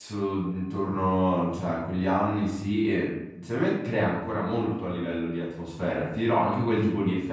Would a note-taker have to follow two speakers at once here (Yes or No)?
No